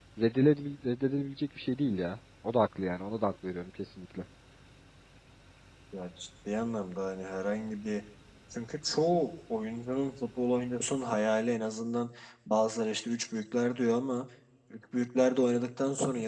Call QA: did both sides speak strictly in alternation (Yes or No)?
Yes